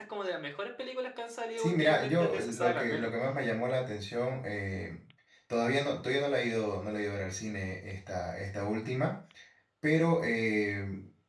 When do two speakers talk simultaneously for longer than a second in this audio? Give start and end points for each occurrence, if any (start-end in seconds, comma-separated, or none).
1.6-3.1